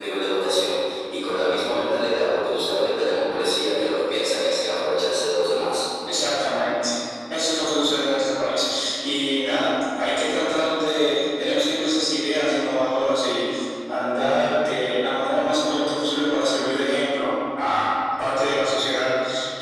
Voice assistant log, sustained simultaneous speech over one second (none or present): none